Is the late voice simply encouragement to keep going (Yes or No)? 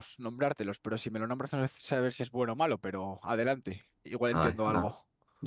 No